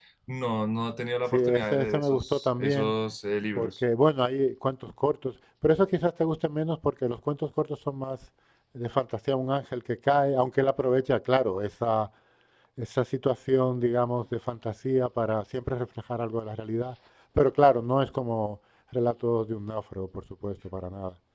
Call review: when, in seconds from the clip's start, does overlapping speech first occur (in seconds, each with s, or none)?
1.3 s